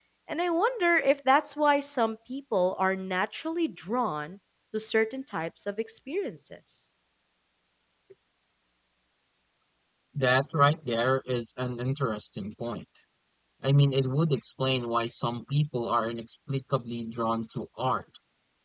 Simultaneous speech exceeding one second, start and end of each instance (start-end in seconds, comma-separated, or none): none